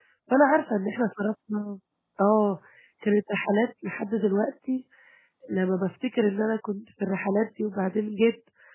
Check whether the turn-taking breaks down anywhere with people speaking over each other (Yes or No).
No